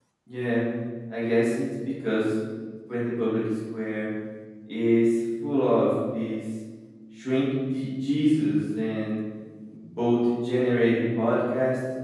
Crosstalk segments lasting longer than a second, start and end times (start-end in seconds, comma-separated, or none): none